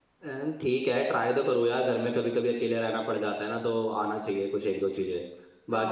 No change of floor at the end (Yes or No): No